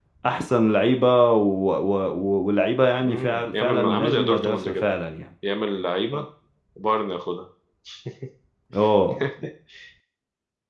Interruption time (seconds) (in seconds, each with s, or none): 3.0 s